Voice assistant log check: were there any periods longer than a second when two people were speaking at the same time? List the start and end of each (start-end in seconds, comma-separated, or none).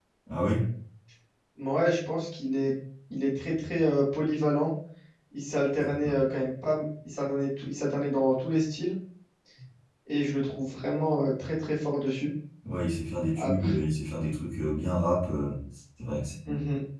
none